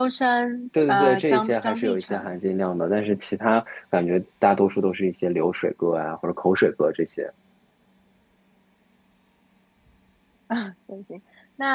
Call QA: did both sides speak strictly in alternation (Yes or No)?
No